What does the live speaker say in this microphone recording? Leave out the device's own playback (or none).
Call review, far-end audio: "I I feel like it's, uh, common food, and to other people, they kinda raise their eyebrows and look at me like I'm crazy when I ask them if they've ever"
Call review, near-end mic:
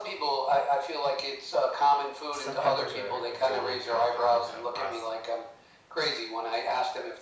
stuffed peppers are are fairly kind of common across